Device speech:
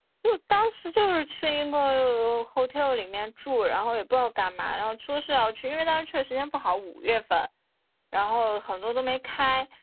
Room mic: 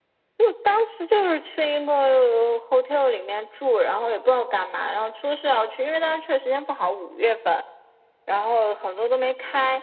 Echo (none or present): present